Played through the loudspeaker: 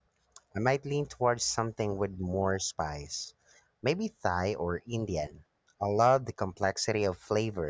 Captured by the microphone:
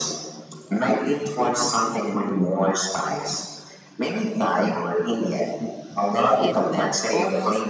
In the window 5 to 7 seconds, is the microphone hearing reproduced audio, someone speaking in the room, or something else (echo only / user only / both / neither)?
both